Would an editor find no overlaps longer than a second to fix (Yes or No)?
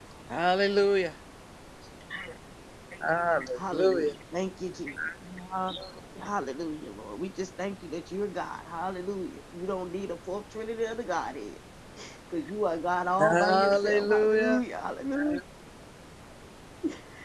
No